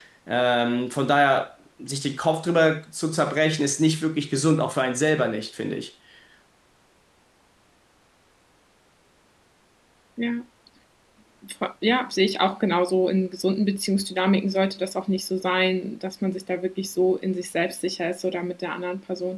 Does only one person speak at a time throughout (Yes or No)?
Yes